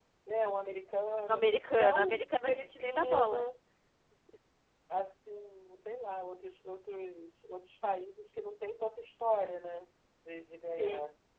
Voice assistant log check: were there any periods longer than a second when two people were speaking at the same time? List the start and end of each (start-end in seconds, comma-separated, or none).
1.3-3.5